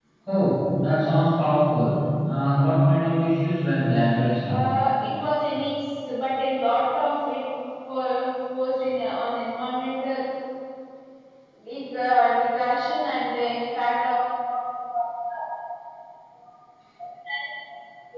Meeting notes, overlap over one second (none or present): none